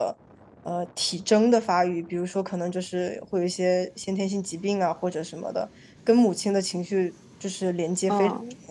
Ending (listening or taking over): taking over